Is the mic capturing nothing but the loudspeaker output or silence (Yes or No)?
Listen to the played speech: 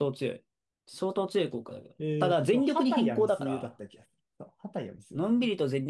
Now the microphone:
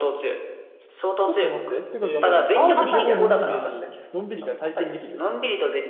No